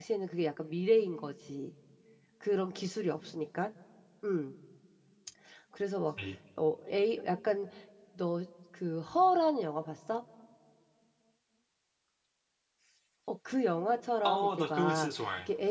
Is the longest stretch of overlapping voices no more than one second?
No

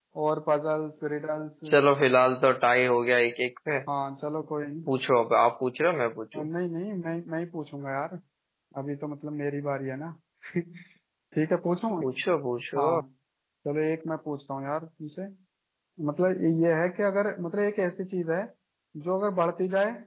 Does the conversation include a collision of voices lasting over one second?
No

